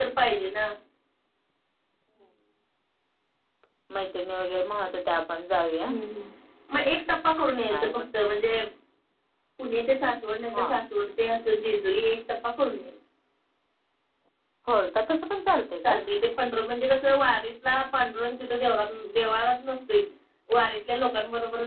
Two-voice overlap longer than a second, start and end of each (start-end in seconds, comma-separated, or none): none